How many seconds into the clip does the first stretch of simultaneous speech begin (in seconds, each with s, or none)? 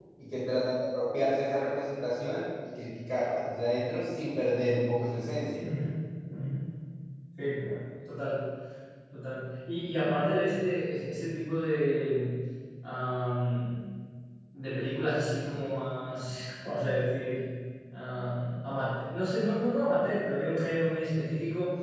none